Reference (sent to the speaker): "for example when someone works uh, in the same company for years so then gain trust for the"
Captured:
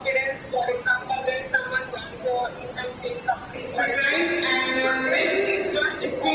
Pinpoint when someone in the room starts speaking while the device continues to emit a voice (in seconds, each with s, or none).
3.5 s